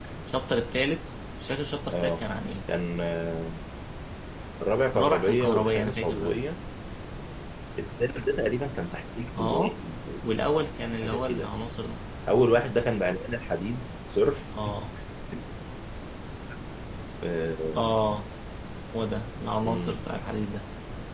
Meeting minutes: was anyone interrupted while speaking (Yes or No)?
Yes